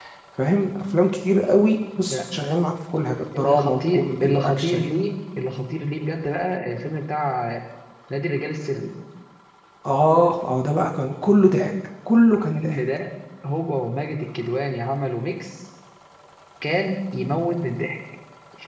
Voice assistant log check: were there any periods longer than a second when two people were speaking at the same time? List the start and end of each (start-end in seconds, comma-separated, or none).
3.4-4.8